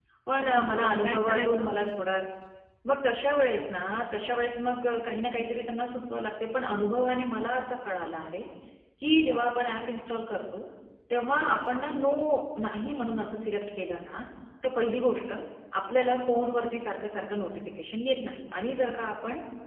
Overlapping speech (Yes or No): Yes